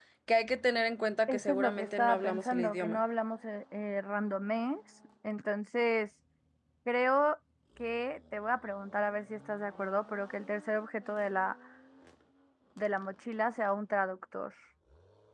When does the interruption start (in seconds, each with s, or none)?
1.3 s